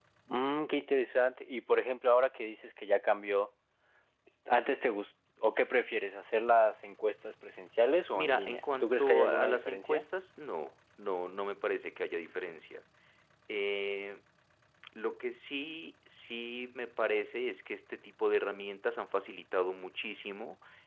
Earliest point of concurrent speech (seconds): 8.1 s

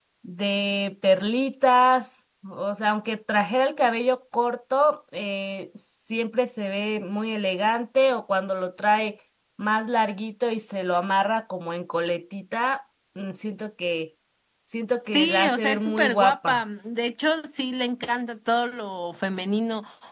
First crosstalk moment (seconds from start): 15.0 s

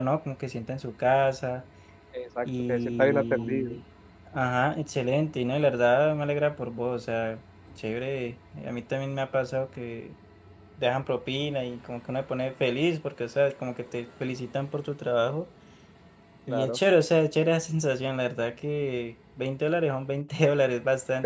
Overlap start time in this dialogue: 2.5 s

